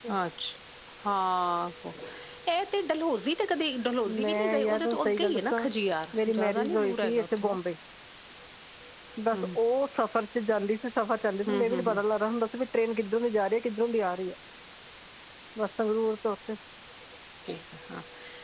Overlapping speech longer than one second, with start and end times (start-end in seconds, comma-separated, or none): 4.2-5.7, 6.1-7.6